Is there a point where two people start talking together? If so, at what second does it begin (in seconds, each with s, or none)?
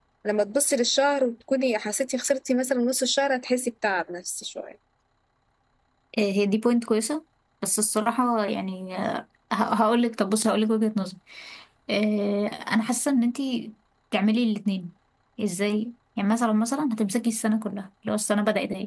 none